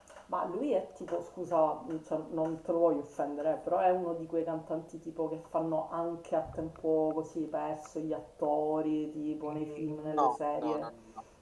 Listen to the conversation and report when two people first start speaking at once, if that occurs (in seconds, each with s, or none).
9.4 s